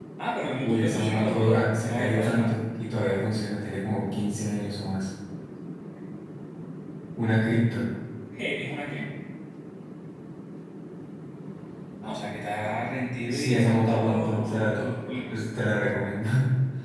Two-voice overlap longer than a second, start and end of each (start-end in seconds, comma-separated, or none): 0.6-2.6, 13.3-14.8